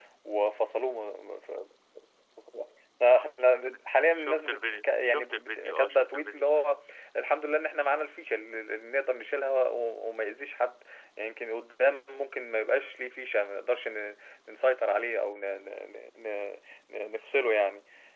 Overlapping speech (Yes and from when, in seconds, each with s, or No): Yes, from 4.1 s